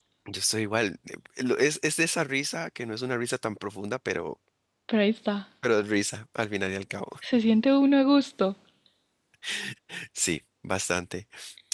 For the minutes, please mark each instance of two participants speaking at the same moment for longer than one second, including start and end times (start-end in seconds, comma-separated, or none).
none